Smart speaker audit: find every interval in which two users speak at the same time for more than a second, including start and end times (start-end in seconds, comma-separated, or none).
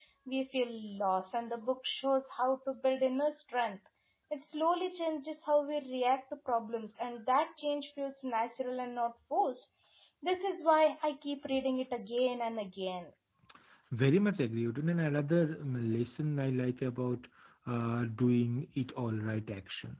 none